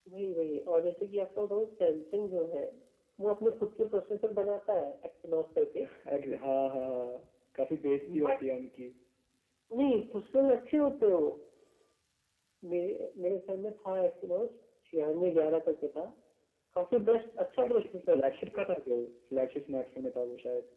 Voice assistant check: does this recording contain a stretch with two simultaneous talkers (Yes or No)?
Yes